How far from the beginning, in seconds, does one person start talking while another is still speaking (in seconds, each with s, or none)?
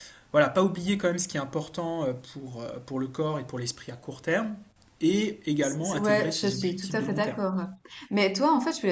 5.6 s